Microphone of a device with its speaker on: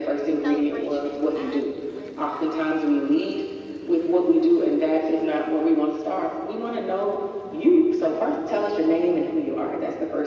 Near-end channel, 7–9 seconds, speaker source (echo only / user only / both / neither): echo only